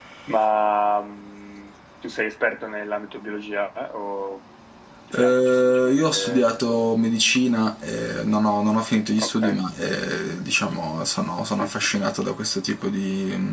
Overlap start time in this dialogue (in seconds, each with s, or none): 5.1 s